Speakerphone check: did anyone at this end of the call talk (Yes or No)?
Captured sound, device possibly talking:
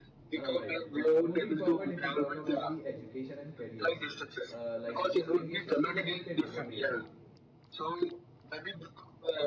Yes